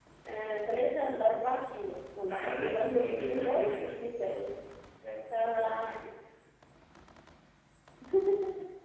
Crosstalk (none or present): present